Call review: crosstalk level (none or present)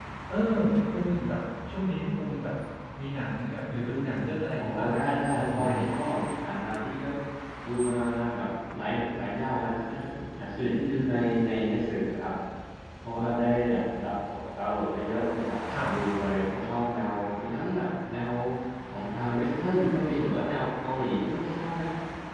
present